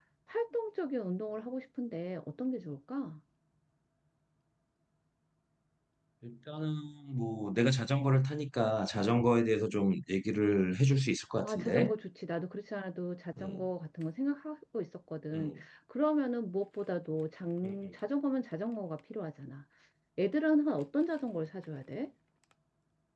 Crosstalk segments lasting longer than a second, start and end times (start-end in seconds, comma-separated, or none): none